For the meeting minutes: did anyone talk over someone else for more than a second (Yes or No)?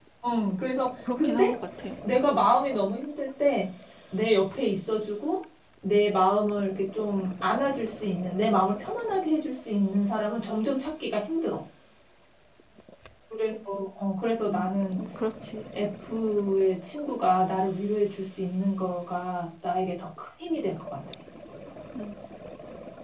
No